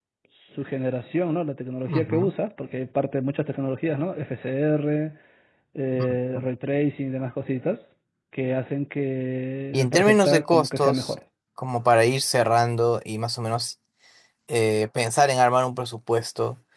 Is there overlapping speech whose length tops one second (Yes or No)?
Yes